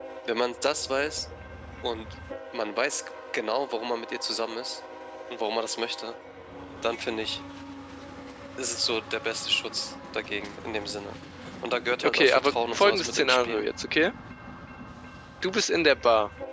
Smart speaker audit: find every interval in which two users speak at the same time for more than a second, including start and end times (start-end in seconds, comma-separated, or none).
12.0-13.6